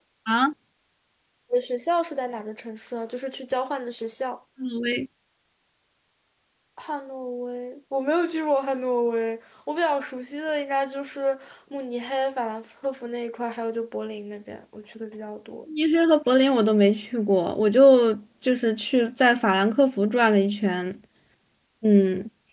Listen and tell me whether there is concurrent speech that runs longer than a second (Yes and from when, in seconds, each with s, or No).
No